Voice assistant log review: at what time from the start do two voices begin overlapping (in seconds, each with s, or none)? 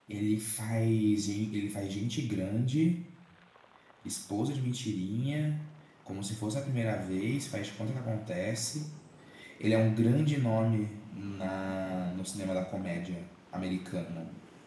none